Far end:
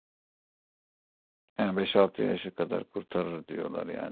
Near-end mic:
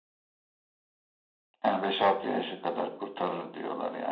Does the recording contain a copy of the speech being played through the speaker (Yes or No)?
Yes